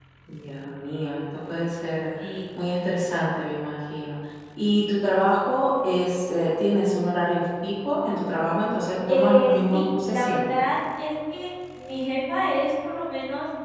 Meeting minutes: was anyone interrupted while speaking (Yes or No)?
Yes